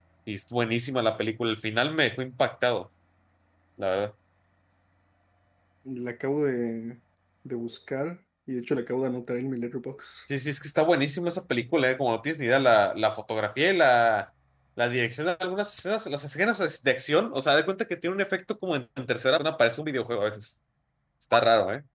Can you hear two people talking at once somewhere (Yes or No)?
No